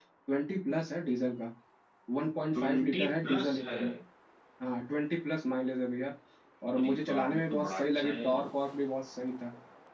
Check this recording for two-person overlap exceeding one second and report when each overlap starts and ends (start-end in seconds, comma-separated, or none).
2.5-3.8, 6.8-8.5